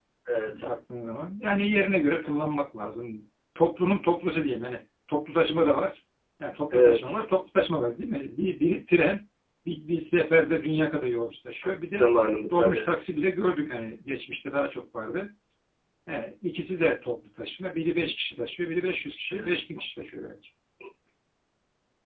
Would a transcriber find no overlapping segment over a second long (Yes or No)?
Yes